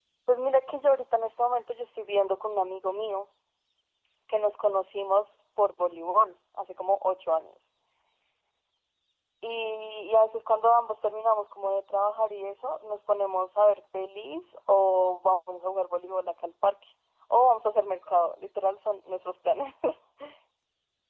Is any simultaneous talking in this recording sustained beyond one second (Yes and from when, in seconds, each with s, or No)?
No